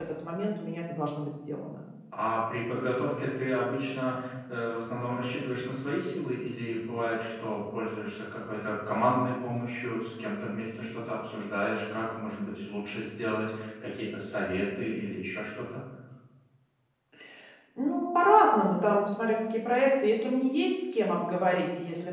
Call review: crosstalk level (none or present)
none